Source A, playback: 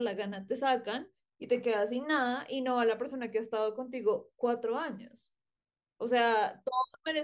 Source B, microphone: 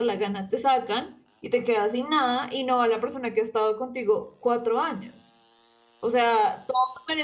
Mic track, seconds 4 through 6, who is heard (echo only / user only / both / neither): echo only